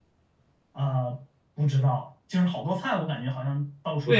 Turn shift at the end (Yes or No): Yes